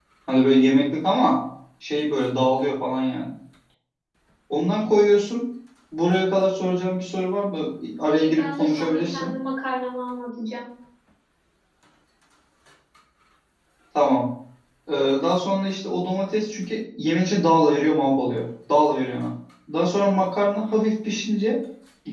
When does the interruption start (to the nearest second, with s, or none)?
8 s